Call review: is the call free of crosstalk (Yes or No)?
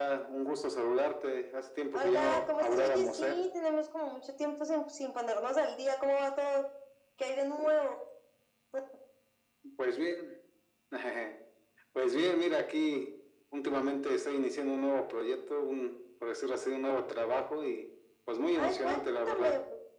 No